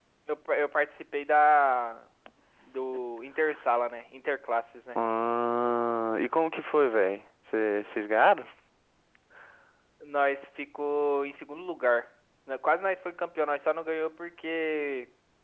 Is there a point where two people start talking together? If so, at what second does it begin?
none

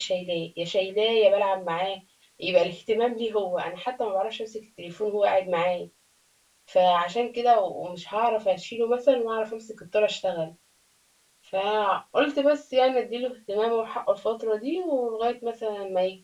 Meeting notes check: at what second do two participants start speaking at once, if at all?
none

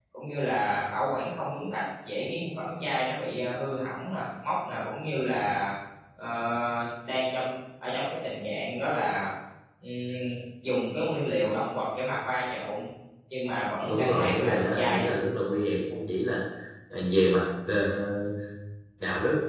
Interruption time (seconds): 14 s

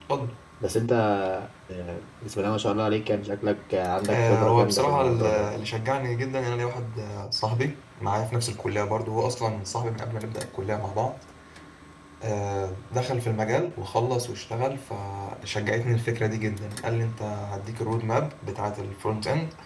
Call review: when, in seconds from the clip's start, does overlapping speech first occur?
4 s

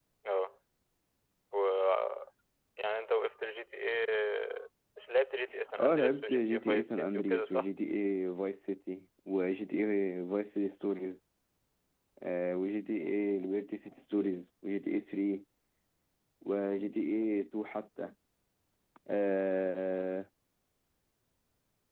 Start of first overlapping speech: 6 s

